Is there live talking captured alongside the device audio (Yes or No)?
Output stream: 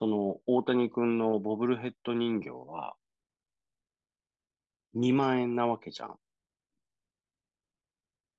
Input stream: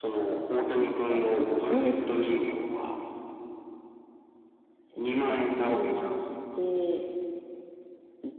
Yes